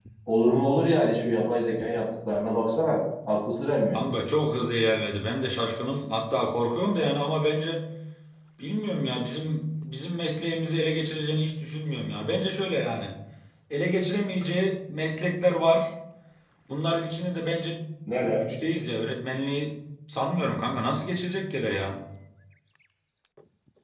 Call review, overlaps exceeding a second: none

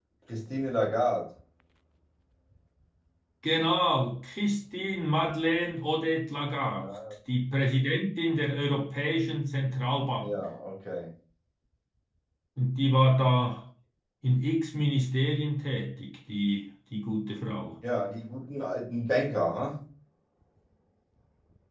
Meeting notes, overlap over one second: none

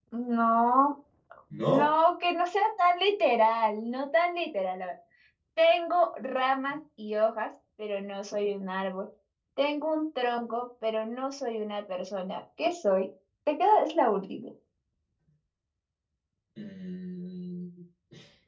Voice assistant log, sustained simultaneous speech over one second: none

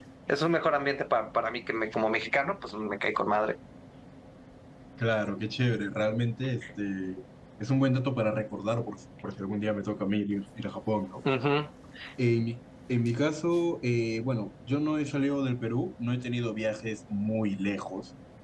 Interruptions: none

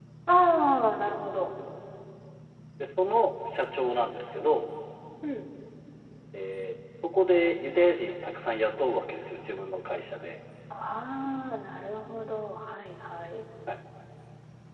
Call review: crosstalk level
none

